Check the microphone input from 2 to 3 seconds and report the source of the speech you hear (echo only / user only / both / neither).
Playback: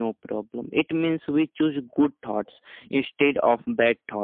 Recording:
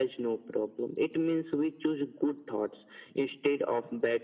echo only